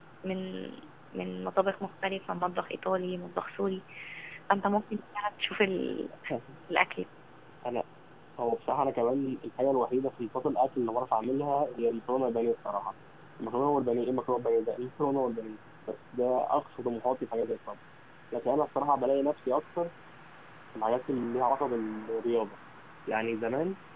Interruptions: none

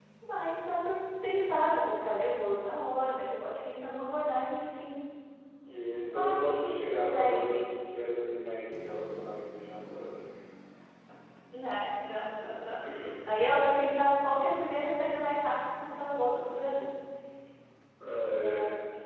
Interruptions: present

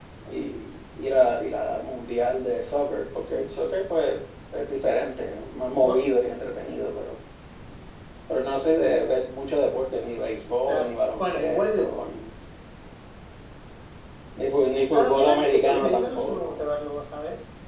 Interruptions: present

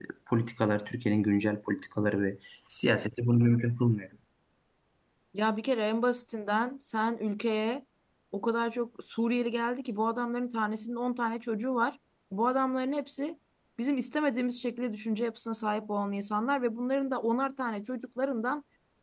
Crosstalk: none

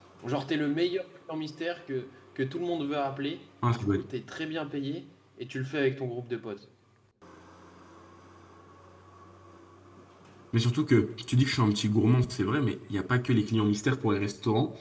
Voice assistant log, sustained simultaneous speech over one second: none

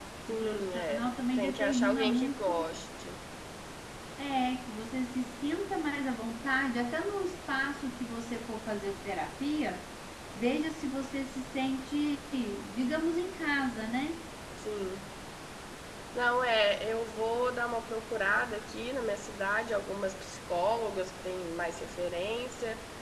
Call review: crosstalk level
present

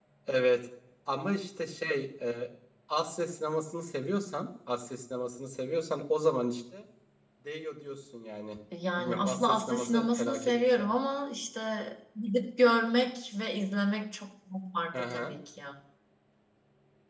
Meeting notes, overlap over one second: present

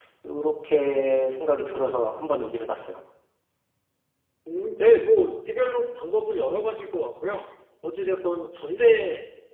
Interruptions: none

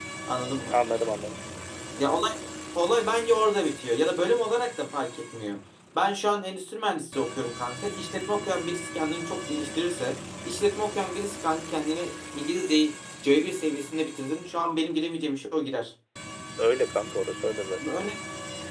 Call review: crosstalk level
none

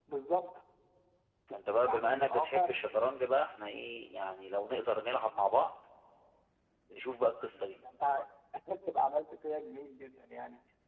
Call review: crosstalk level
present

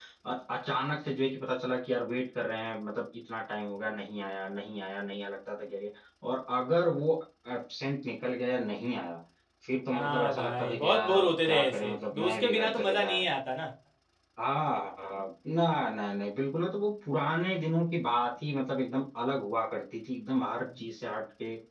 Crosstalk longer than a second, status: present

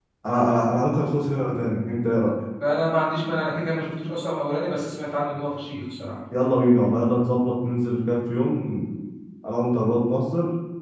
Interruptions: none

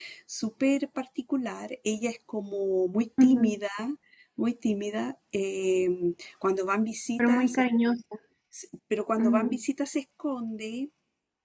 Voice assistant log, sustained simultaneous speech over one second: none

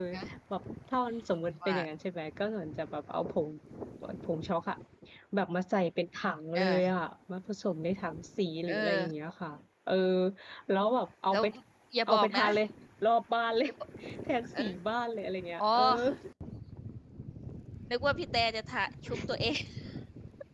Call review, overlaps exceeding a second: none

